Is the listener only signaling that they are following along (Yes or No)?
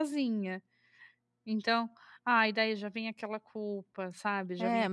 No